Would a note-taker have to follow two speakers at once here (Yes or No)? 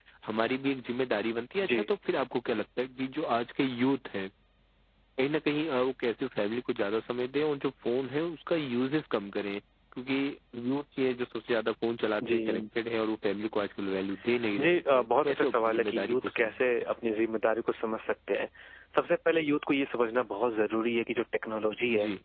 Yes